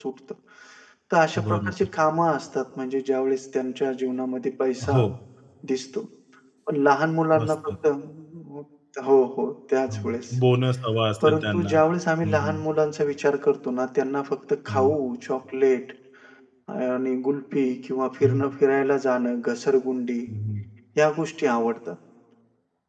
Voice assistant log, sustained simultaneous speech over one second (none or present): none